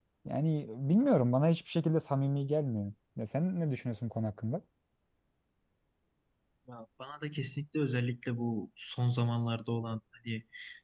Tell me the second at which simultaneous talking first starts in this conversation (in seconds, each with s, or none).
none